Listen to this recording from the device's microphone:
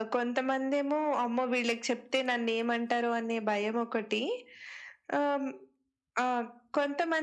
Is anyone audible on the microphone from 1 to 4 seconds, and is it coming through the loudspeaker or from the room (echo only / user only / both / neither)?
echo only